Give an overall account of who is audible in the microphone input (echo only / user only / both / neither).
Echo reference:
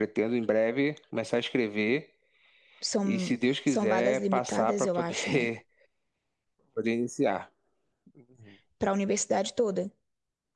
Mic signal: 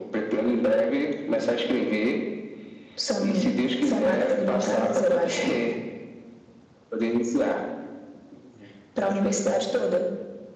echo only